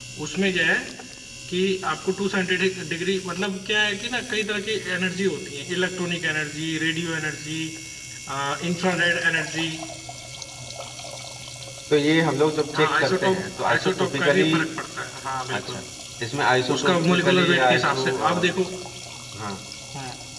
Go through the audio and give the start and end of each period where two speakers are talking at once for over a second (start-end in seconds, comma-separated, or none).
12.7-14.6, 16.8-18.5